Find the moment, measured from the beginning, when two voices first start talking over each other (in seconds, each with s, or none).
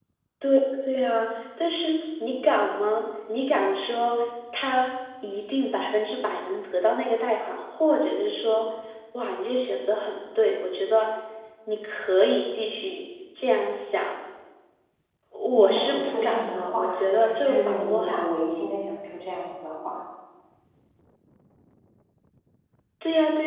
15.6 s